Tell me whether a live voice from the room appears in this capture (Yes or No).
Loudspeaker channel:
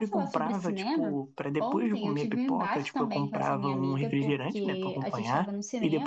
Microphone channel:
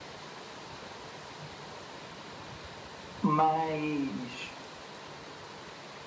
Yes